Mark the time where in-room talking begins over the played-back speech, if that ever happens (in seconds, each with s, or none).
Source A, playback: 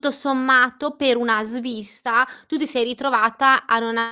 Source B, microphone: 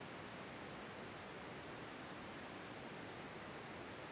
none